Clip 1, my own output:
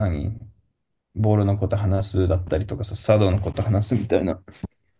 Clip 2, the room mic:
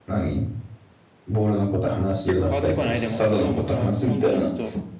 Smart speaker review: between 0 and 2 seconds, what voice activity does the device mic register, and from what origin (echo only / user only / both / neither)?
echo only